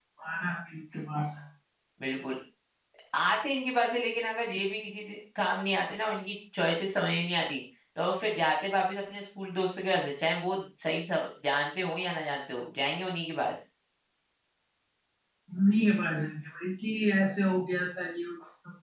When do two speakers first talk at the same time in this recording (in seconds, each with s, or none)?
none